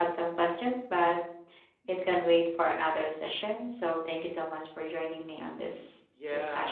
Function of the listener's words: taking over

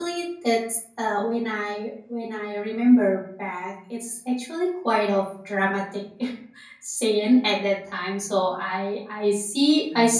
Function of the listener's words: listening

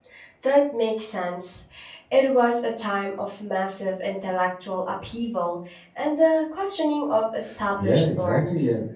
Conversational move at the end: taking over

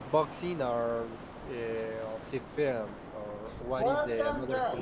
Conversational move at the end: taking over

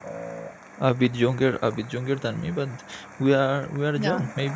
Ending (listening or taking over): listening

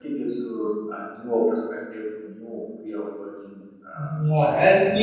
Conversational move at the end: taking over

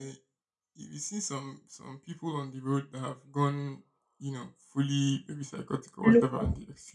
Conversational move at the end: listening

